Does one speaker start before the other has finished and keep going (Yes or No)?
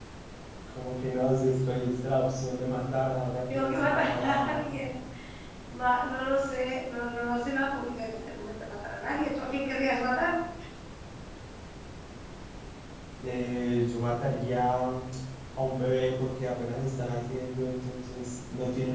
Yes